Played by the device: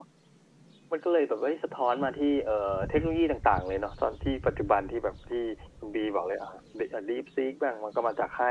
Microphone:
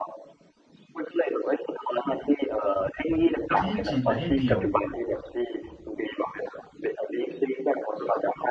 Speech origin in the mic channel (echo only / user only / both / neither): both